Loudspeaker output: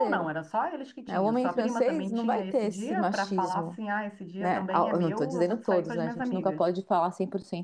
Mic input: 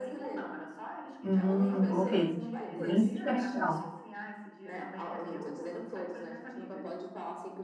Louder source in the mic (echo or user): user